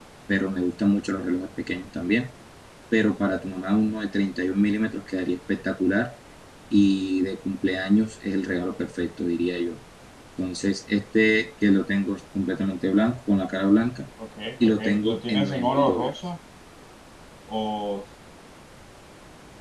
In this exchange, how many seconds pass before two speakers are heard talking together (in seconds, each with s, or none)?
14.6 s